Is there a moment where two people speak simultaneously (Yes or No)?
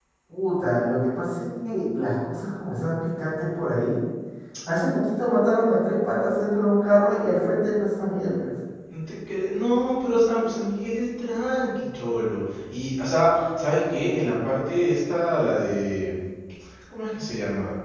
No